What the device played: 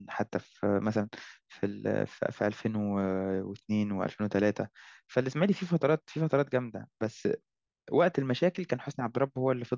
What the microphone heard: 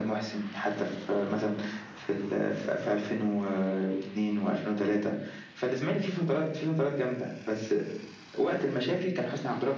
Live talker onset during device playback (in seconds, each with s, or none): none